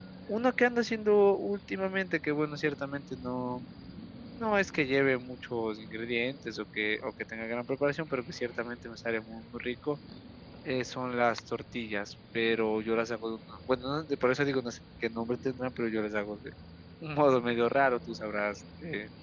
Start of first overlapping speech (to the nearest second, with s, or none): none